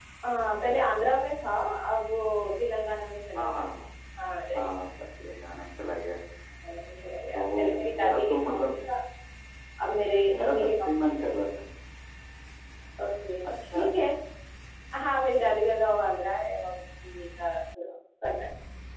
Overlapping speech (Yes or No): Yes